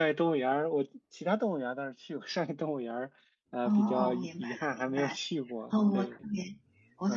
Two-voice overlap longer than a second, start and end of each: 3.6-5.2

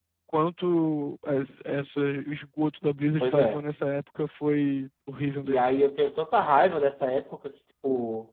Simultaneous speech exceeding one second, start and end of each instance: none

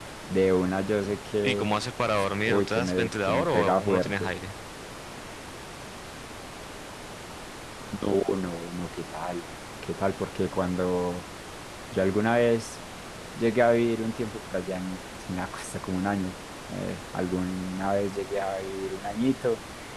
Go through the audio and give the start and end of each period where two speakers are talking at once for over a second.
2.5-4.3

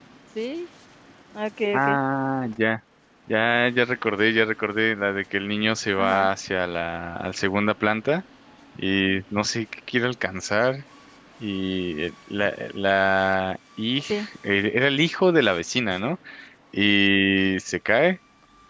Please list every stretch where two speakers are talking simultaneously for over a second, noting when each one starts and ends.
none

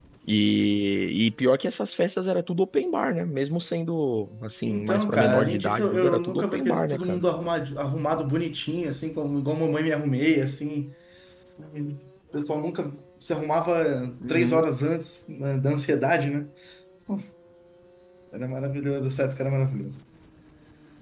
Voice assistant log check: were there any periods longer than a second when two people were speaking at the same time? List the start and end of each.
4.7-7.2

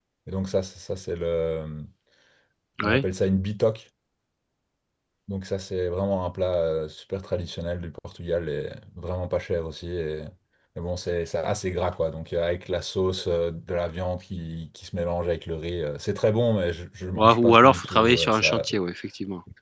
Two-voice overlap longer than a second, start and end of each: 17.1-18.7

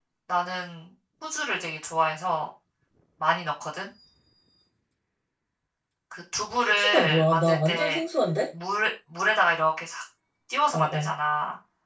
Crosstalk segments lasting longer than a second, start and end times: 6.6-8.0

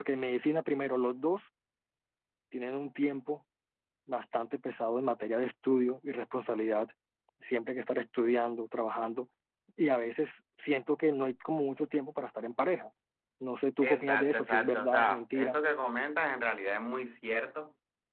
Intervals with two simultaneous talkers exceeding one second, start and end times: 13.8-15.6

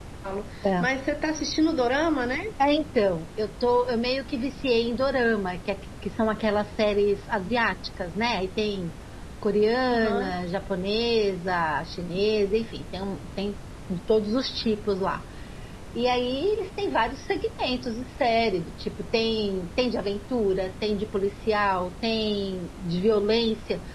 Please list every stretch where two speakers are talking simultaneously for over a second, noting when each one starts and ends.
none

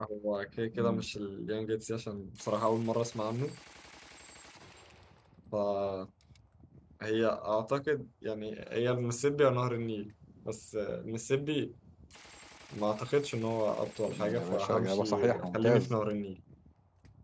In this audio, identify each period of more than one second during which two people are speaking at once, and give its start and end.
14.3-15.9

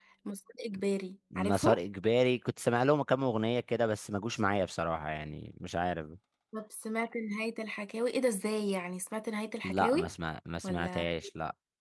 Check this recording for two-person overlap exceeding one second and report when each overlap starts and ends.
none

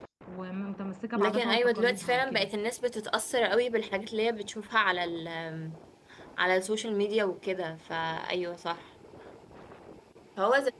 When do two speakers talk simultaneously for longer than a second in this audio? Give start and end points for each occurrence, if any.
1.1-2.5

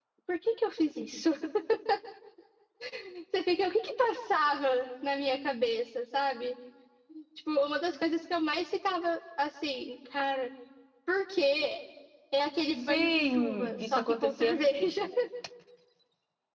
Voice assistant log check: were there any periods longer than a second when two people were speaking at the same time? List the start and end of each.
12.8-14.9

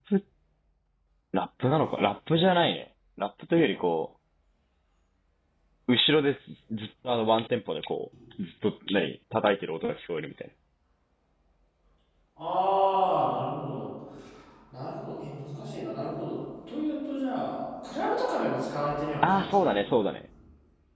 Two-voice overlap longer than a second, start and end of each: none

